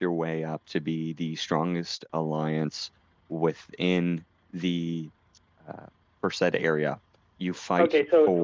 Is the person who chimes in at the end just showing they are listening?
No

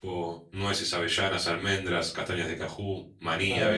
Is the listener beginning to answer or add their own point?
Yes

